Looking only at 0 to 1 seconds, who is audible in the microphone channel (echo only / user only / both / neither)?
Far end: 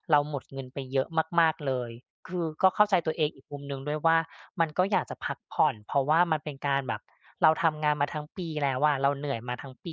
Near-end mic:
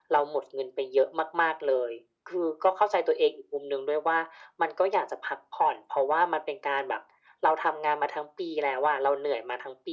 echo only